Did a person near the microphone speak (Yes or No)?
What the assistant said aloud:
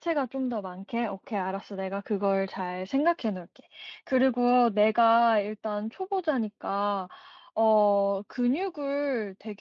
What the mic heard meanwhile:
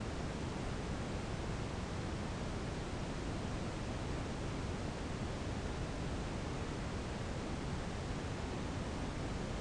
No